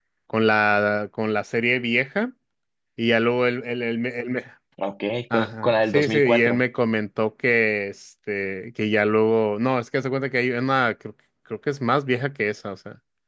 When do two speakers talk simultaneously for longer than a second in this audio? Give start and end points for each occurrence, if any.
5.3-6.6

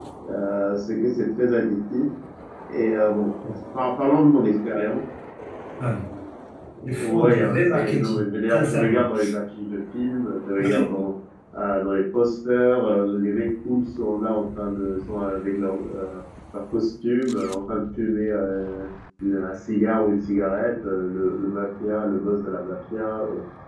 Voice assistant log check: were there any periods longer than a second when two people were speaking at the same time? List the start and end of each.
6.8-9.0

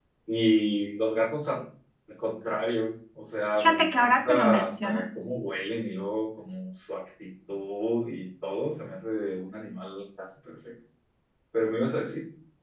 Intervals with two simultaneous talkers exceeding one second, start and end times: 3.6-5.0

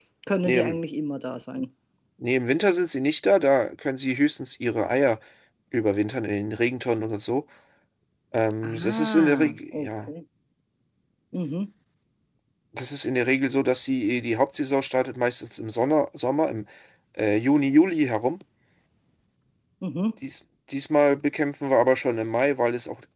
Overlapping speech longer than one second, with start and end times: 8.6-10.1

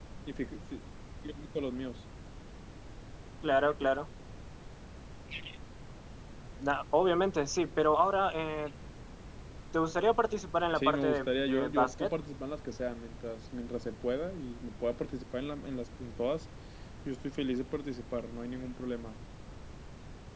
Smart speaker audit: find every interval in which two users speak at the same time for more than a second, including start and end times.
10.8-12.1

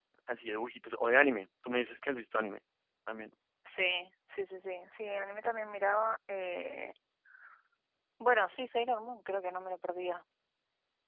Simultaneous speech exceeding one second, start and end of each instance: none

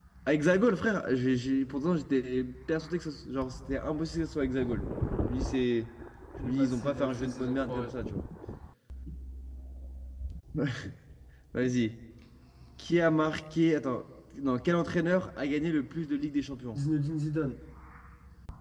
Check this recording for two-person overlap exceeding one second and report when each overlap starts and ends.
6.4-7.9

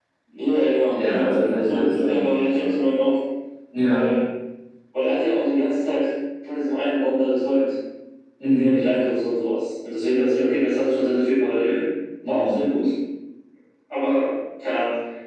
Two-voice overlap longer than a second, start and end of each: 0.9-2.7

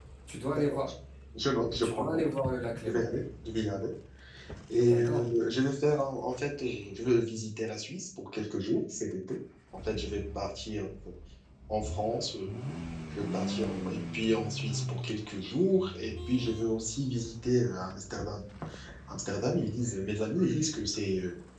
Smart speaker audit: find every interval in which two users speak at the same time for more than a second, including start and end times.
none

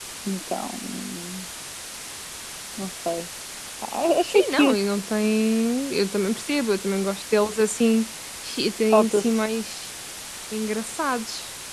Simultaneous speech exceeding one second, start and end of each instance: none

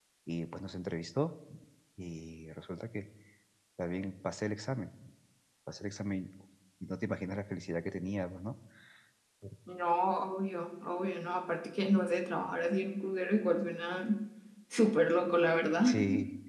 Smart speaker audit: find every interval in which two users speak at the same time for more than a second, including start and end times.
none

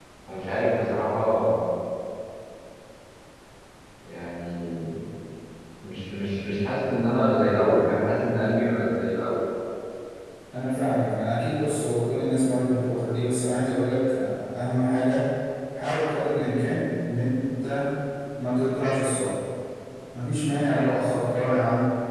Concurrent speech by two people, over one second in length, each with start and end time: none

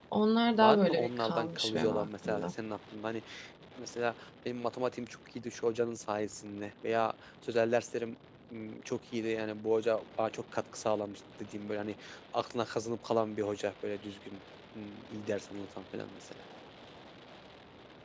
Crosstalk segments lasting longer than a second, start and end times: 0.6-2.5

